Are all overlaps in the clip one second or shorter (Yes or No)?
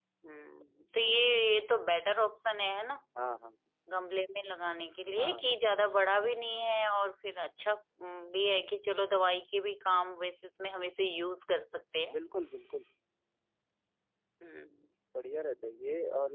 Yes